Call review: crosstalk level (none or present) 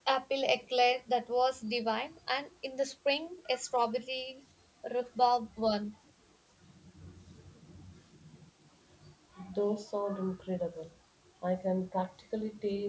none